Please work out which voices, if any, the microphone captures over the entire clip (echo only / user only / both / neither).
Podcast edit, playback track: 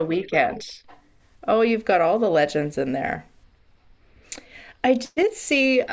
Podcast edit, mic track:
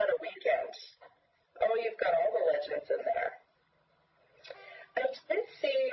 echo only